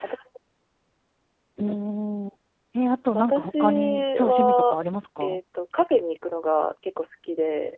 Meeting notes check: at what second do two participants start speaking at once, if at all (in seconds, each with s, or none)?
3.1 s